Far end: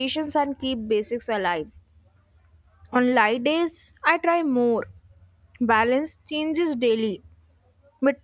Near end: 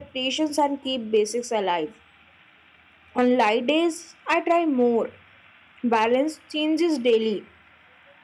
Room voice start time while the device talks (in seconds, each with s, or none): none